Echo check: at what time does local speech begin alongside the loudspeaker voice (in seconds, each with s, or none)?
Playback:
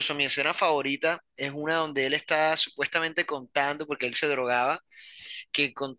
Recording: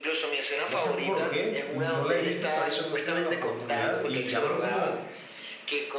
0.6 s